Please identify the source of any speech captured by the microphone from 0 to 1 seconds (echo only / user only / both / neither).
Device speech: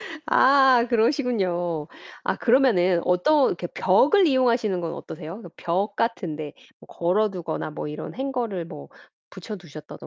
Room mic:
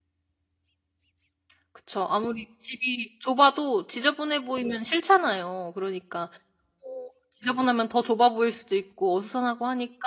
neither